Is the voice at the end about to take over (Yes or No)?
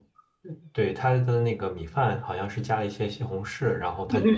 No